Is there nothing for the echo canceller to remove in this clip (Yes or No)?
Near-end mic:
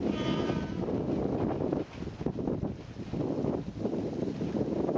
Yes